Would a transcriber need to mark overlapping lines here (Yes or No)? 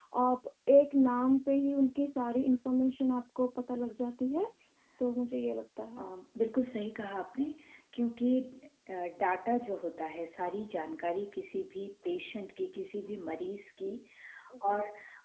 No